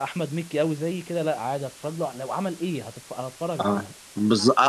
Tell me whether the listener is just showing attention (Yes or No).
No